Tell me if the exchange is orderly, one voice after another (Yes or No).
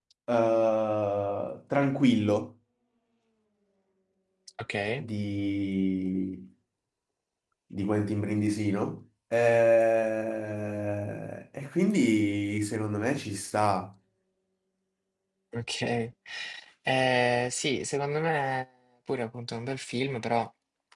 Yes